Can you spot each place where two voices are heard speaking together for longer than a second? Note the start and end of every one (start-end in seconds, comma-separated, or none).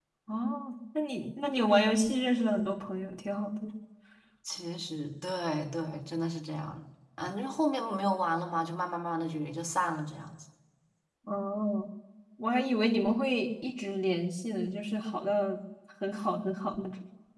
none